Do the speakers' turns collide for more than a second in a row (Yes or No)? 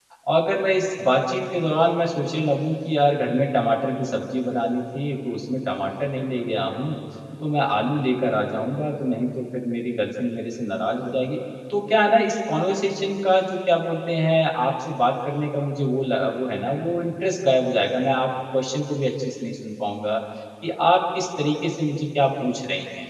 No